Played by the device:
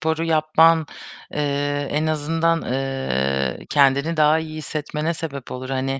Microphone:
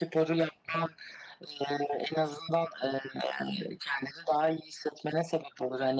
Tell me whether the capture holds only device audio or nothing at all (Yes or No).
Yes